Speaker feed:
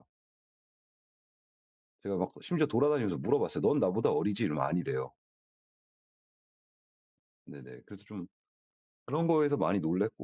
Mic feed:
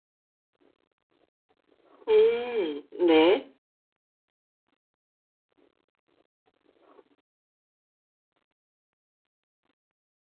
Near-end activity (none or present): present